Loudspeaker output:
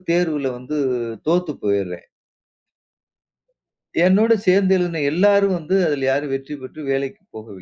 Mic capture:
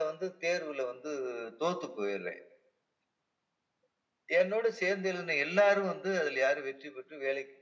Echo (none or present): present